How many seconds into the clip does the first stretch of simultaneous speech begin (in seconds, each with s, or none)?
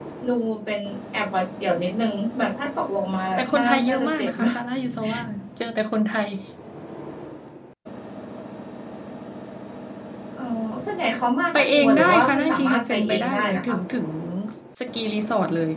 3.4 s